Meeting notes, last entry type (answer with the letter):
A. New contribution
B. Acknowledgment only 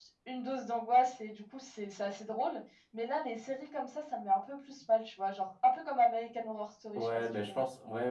A